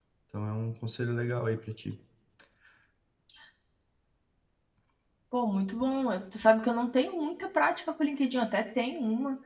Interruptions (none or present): none